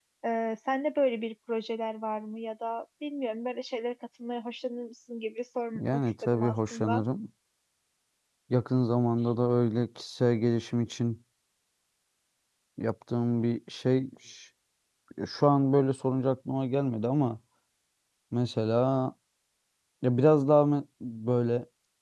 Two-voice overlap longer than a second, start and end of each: 5.8-7.0

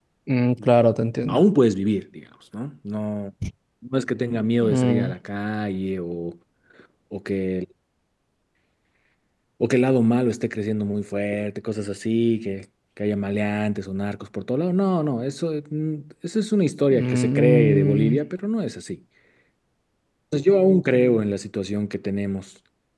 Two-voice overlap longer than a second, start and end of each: 16.9-18.2

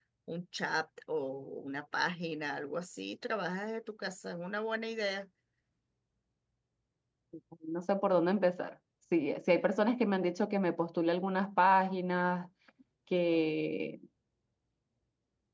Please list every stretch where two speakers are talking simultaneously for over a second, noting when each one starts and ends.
none

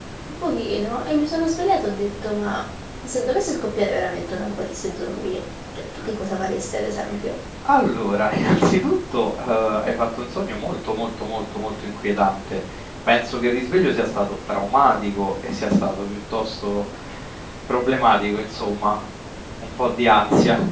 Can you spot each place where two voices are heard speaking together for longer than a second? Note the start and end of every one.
none

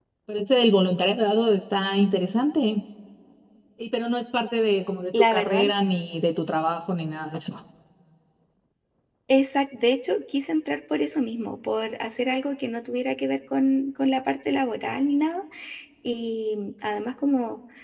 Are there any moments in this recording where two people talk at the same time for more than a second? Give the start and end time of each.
none

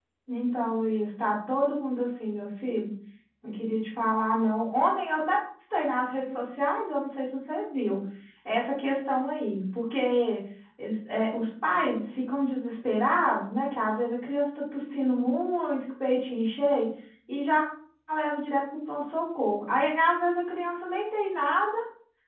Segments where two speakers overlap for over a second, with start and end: none

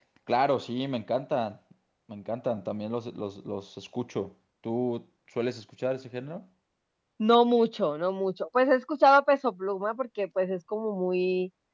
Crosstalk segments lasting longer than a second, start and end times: none

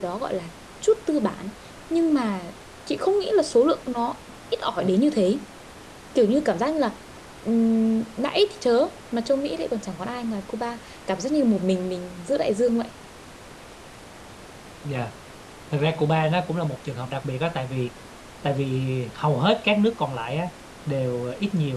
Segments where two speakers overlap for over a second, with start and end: none

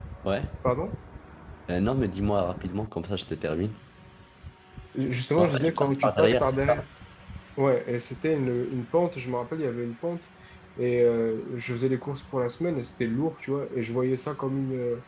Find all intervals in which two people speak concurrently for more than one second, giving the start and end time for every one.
5.4-6.8

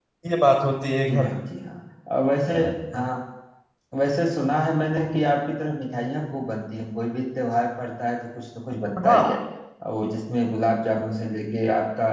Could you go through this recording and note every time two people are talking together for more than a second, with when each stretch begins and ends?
none

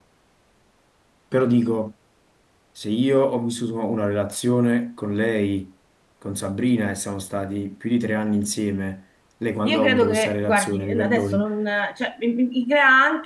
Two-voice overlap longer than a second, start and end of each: 9.6-11.4

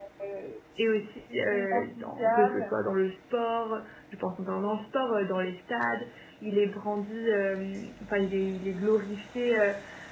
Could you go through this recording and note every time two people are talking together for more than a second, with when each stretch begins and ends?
1.5-2.8

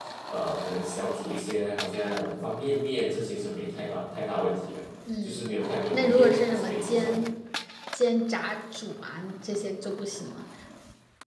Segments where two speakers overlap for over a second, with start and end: 5.9-7.2

